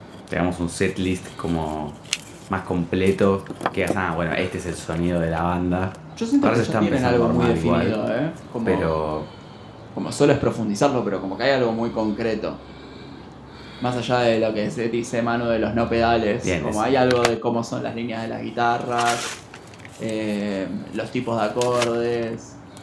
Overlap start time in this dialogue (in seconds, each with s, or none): 6.4 s